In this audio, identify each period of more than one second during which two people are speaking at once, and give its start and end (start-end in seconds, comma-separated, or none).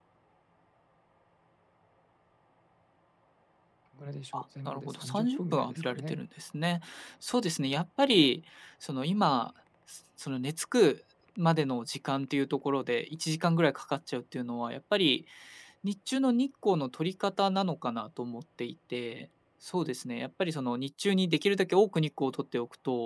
4.7-6.2